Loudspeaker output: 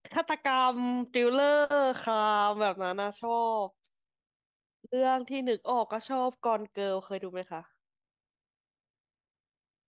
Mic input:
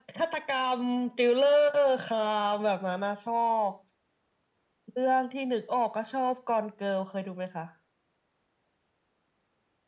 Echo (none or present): present